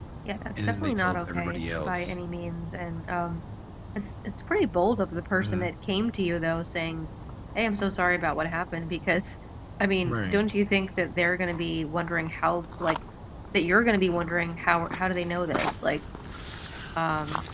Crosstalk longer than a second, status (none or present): present